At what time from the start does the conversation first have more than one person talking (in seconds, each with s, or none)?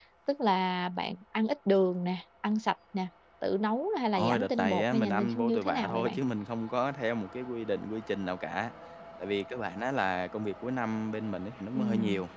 4.2 s